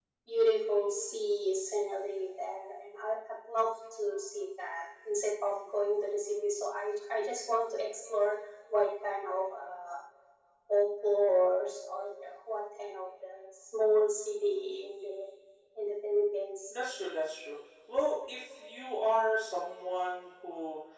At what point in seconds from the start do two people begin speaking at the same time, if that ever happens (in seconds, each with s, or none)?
none